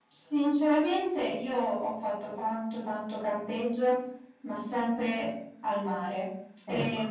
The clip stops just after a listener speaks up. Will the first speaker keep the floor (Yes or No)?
Yes